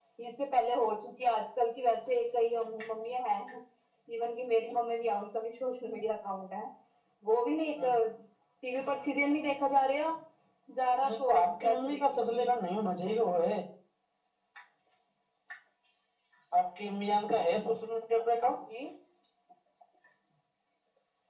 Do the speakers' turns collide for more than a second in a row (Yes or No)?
Yes